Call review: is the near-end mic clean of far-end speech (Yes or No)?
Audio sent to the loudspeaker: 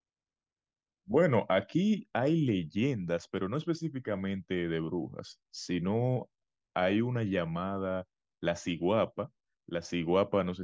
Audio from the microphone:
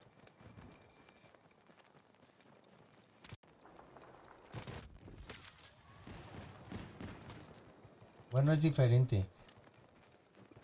Yes